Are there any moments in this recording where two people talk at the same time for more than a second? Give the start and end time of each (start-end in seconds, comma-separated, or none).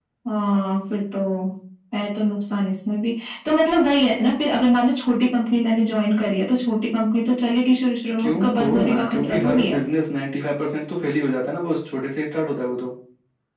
8.2-9.8